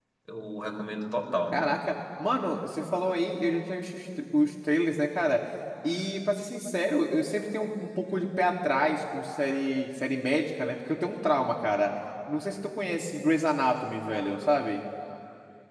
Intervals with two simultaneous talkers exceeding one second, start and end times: none

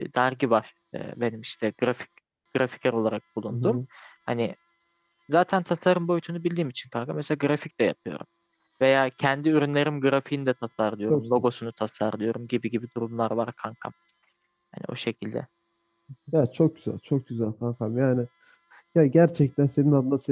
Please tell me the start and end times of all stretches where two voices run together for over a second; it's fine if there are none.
none

